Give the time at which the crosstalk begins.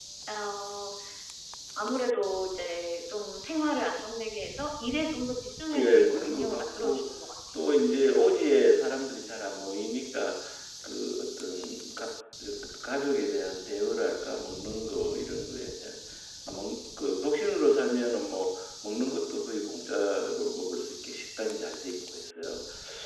5.8 s

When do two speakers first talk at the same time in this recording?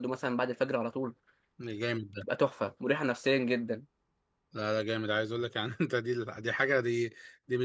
none

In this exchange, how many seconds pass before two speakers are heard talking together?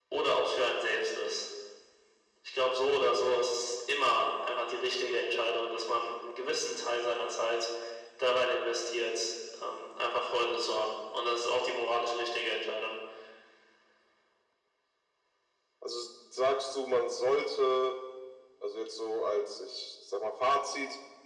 none

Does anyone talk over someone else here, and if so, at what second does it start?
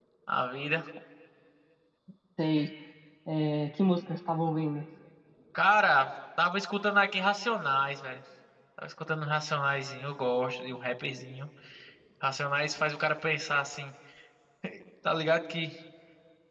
none

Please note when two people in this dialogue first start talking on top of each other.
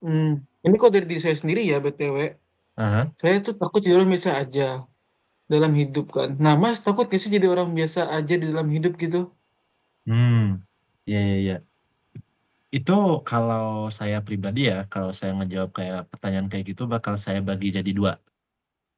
none

